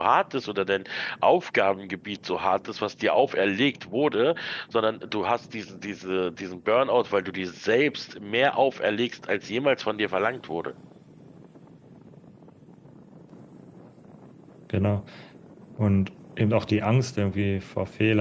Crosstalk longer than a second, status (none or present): none